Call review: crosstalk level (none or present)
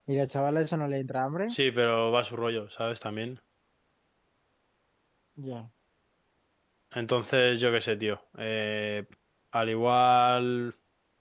none